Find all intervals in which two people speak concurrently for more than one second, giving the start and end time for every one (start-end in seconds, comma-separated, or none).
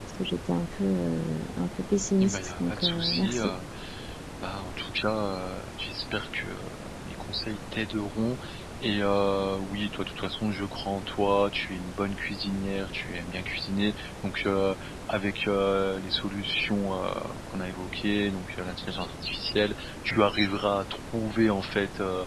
2.2-3.5